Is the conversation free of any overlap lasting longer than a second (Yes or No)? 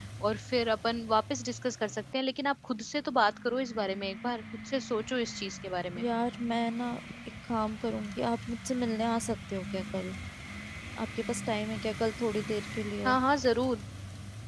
Yes